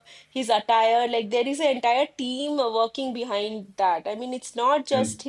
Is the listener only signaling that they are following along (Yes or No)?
Yes